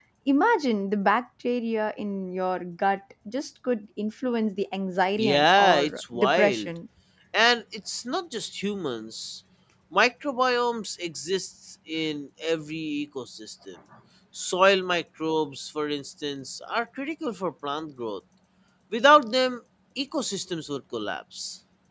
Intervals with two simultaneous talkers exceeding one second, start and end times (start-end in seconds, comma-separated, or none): 5.2-6.7